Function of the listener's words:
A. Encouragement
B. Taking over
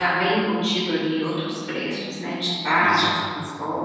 B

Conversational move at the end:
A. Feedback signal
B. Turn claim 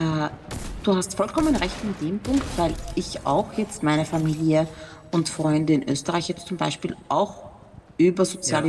A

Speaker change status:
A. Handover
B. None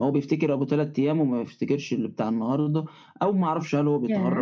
B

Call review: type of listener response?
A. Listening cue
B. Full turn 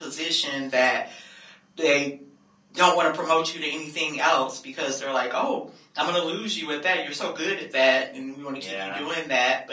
A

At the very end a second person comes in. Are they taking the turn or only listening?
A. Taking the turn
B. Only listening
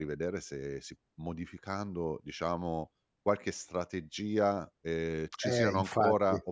B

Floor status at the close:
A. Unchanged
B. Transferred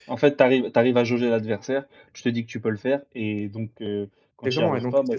B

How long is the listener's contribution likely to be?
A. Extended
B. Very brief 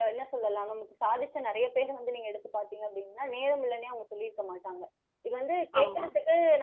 B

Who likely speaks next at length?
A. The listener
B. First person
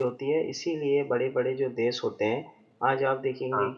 B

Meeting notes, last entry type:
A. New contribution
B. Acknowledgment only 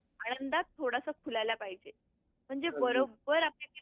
B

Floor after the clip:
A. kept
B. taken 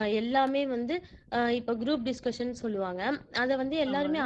A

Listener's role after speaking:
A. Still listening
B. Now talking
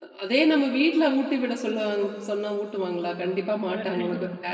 A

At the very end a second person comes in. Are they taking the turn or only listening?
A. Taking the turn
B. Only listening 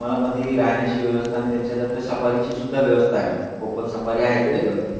A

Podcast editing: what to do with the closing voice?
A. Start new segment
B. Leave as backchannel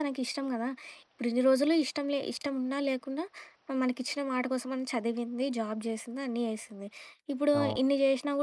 B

